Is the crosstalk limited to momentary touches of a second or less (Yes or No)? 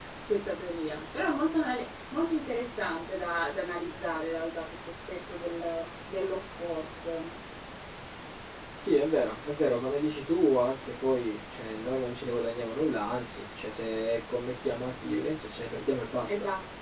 Yes